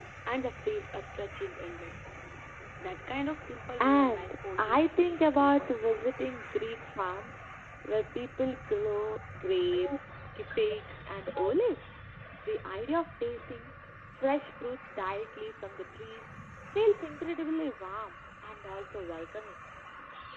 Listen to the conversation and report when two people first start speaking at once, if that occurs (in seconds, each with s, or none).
3.8 s